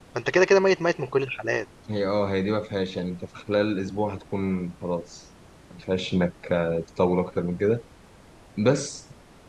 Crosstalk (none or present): none